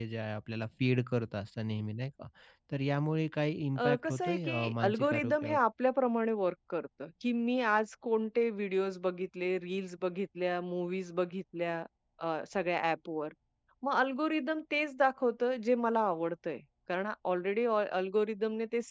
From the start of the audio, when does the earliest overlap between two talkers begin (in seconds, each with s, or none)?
3.8 s